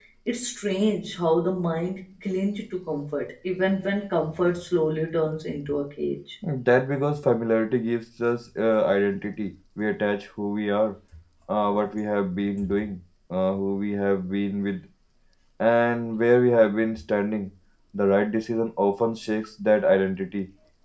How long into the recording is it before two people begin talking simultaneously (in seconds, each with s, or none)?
none